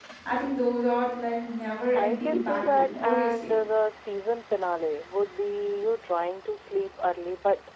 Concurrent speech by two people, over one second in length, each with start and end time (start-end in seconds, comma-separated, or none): 1.9-3.5